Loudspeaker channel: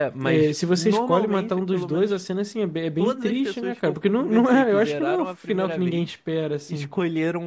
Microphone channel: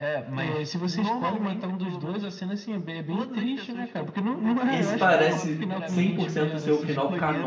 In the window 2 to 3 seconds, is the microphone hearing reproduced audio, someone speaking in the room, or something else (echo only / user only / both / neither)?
echo only